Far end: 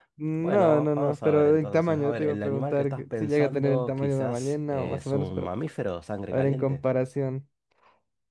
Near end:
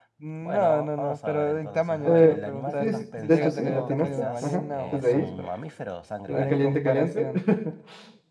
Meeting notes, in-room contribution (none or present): present